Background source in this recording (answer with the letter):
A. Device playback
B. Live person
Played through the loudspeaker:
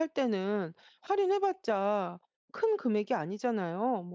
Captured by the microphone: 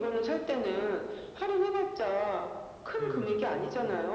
B